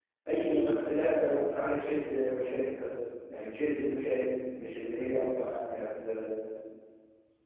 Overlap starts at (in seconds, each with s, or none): none